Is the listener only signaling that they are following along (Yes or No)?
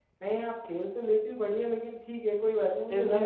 Yes